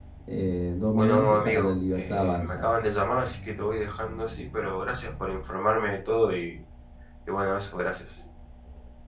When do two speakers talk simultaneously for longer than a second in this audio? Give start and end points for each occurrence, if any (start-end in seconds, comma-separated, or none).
0.9-2.6